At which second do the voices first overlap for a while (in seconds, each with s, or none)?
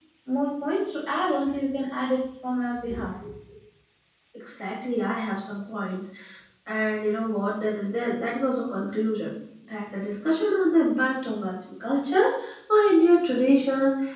none